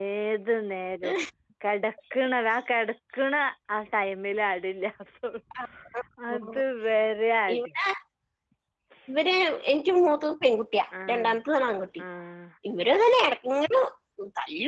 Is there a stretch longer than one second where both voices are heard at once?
No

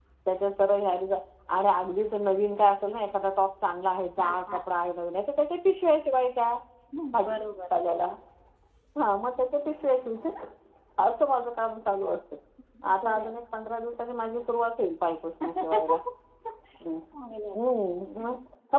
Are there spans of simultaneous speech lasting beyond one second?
No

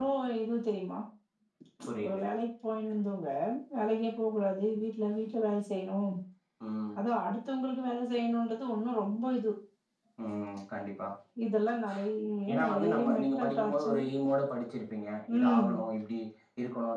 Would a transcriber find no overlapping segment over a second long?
No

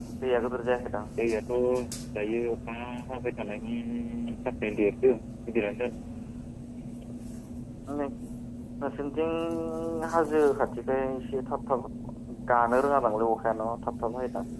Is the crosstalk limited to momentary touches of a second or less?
Yes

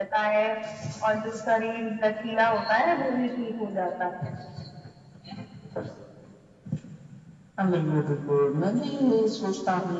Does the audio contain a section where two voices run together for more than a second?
No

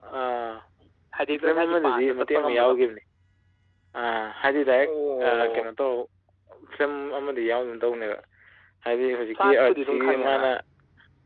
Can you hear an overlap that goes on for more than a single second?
Yes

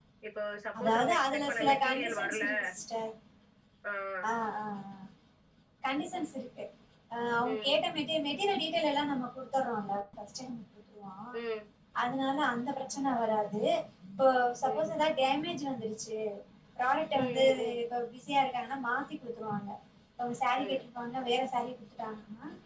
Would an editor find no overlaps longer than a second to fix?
No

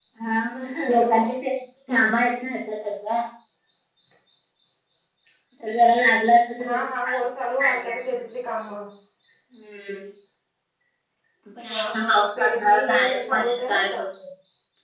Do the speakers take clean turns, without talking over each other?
No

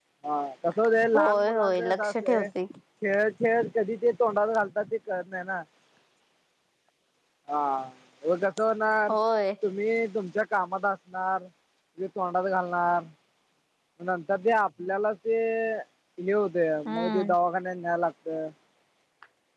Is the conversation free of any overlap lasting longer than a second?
No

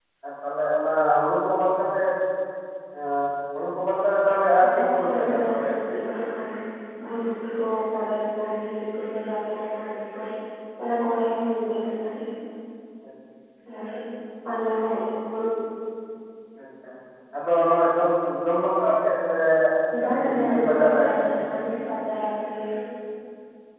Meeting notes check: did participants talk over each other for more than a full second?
Yes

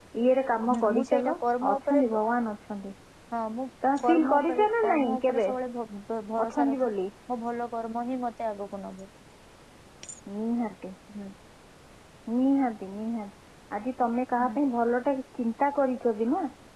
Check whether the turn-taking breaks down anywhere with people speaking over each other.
Yes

